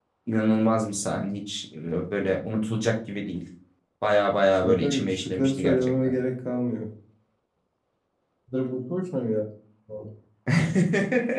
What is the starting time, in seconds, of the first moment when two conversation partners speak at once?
5 s

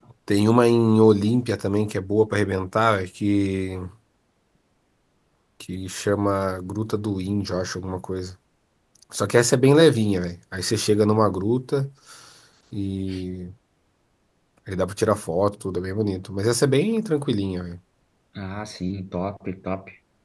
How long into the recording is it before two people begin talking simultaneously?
none

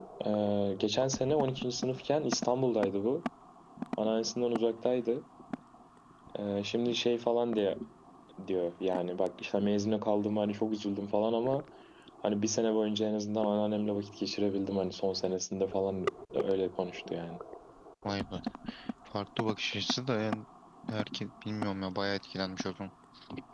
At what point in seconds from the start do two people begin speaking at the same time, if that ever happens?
none

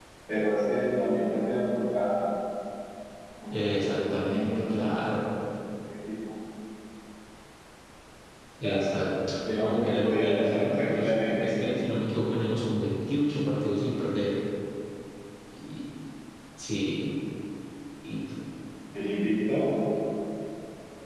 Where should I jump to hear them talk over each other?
4 s

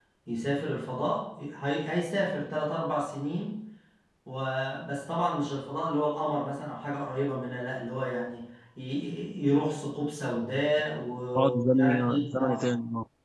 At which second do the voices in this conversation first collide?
11 s

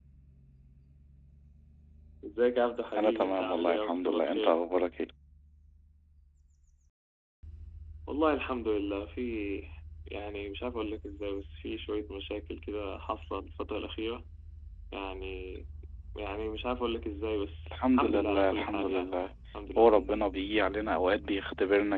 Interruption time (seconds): 3 s

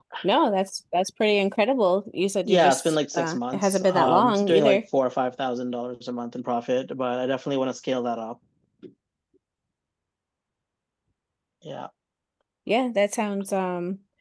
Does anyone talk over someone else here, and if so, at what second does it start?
2 s

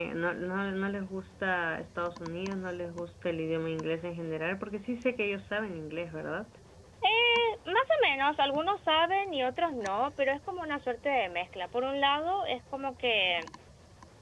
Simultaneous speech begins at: none

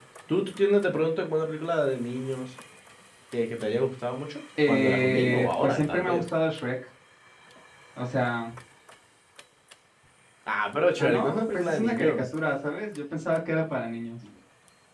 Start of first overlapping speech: 5 s

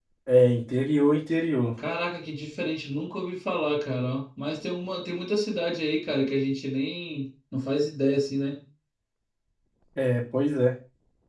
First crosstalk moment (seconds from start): none

